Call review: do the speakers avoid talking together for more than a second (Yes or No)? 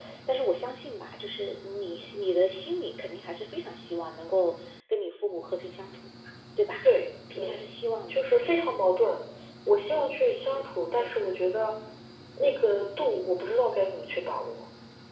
Yes